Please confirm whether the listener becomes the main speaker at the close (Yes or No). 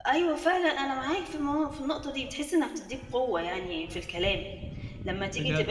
No